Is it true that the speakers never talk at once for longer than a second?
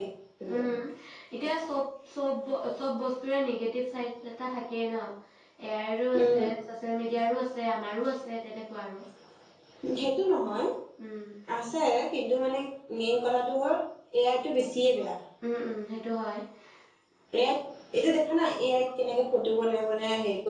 Yes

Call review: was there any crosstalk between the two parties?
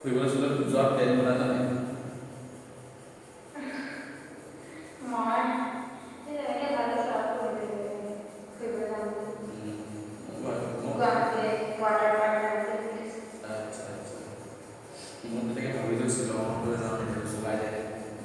No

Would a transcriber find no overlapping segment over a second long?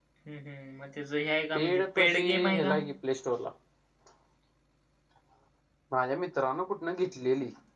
No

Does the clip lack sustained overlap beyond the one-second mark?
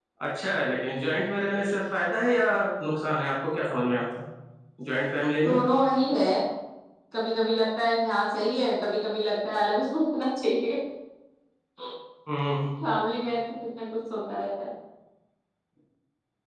Yes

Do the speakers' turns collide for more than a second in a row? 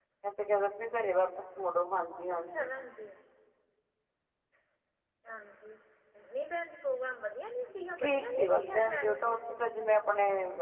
Yes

